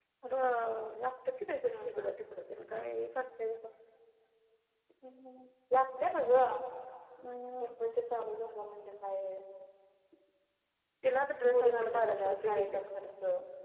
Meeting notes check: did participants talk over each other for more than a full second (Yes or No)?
Yes